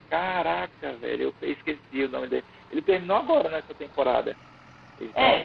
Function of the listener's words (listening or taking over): taking over